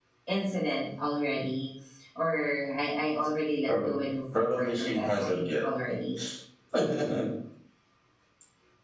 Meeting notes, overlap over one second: present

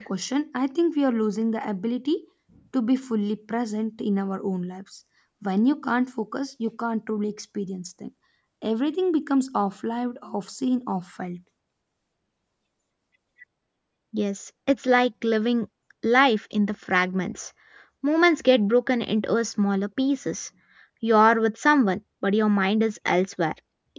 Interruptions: none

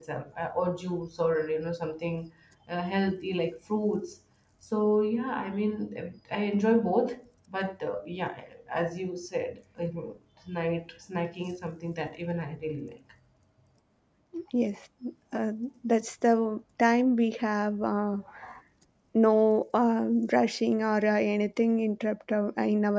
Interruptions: none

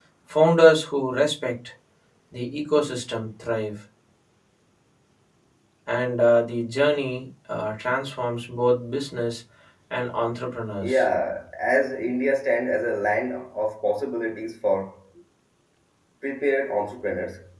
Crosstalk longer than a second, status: none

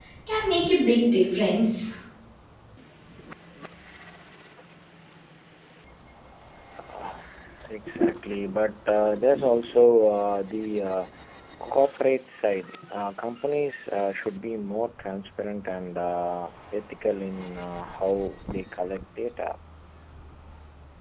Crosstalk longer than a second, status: none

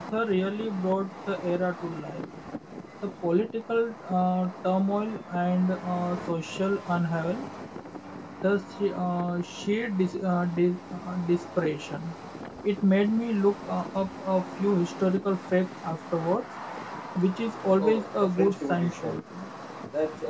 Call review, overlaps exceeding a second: present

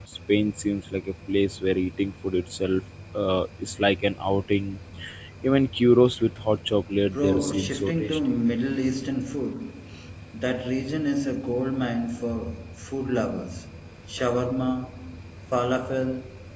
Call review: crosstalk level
present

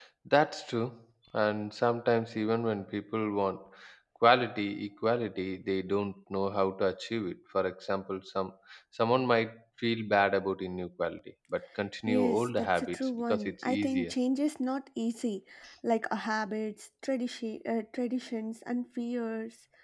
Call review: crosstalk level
present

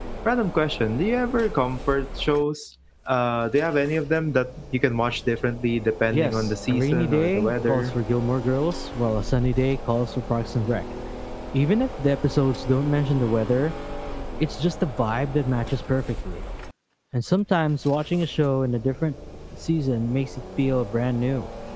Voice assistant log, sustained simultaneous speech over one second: present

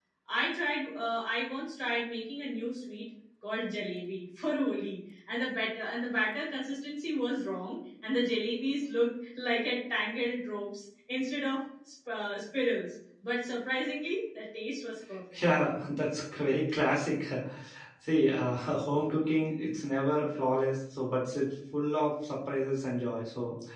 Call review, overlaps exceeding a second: none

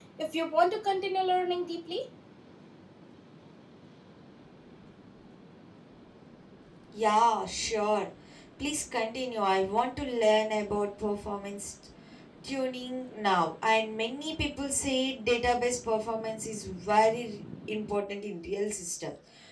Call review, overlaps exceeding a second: none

